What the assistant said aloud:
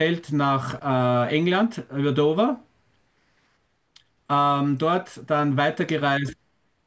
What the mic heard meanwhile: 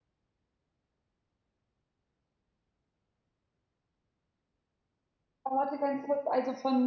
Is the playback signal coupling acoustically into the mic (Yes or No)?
No